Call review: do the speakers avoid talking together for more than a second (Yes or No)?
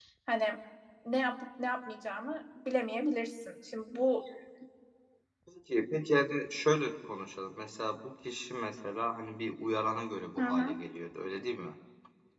Yes